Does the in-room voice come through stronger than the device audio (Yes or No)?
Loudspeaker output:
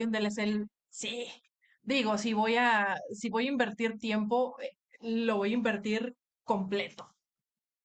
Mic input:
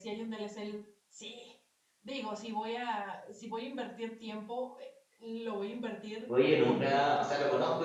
Yes